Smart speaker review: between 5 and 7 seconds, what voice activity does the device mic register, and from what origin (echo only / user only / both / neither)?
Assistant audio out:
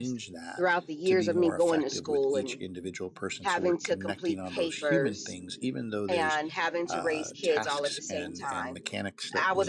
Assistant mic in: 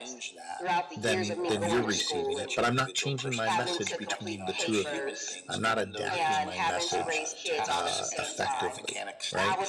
both